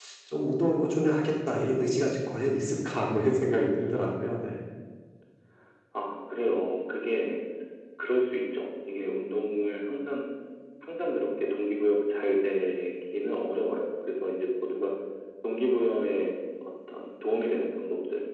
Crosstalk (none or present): none